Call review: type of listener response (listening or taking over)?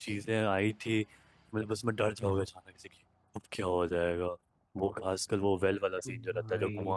listening